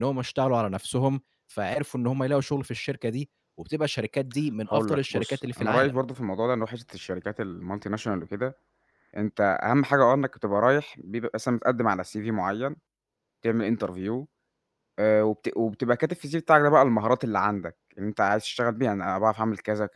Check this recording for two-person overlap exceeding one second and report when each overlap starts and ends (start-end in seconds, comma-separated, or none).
4.7-6.0